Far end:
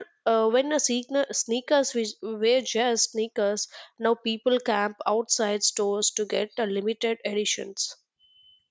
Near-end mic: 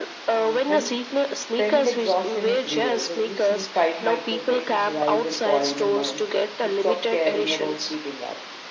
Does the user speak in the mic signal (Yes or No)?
Yes